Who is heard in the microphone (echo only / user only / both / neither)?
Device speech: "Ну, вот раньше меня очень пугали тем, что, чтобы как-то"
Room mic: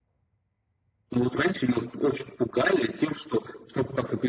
echo only